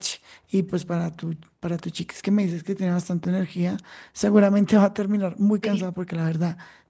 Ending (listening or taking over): listening